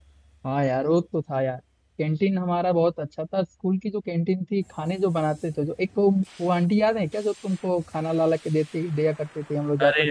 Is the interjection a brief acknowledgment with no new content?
No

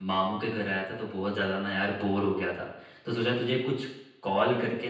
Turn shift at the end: No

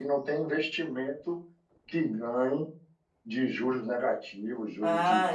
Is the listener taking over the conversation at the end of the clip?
Yes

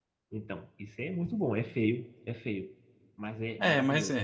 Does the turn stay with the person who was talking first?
No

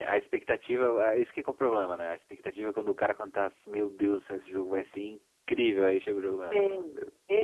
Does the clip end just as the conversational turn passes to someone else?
Yes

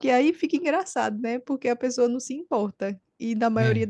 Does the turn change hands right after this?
No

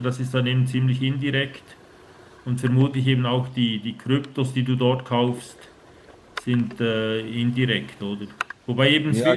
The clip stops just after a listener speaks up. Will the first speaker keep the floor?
Yes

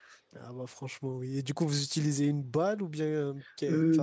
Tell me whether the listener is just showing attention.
No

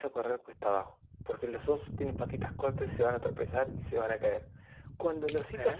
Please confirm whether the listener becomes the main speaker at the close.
No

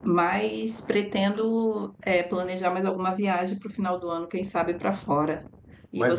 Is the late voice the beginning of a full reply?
Yes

